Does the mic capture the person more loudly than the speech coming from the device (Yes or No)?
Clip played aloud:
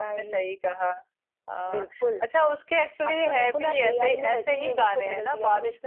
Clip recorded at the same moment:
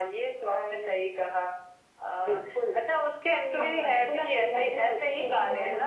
No